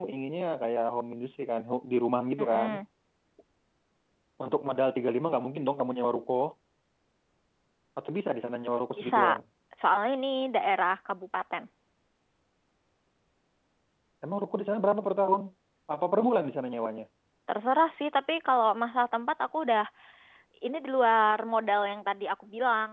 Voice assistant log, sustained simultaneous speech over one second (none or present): none